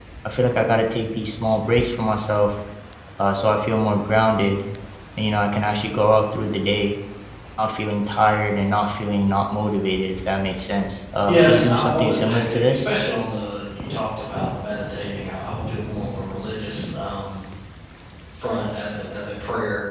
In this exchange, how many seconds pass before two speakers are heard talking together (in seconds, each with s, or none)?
11.2 s